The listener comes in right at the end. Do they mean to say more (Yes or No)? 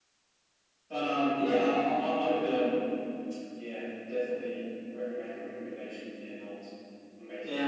Yes